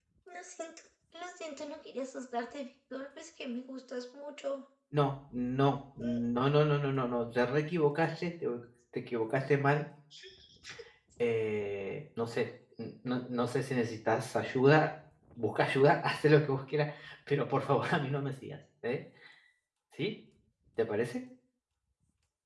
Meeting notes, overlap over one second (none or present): none